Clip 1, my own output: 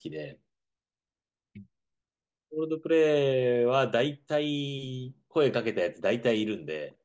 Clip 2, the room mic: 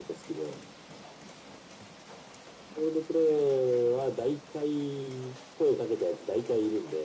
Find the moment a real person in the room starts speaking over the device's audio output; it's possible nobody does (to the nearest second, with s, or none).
none